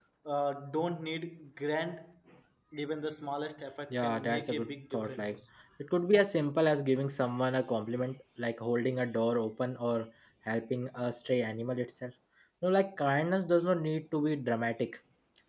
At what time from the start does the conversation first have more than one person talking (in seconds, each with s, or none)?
3.9 s